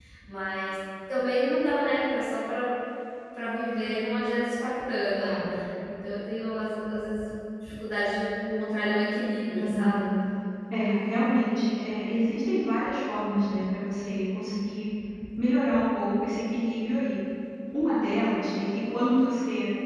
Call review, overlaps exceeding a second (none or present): none